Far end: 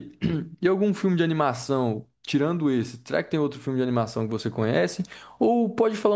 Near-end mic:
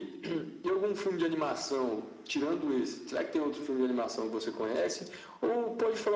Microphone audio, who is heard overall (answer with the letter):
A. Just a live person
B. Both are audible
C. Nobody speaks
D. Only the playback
D